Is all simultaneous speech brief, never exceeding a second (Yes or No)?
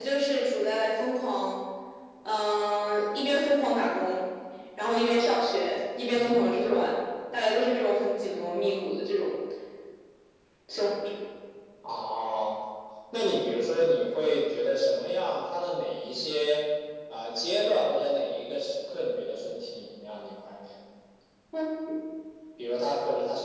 Yes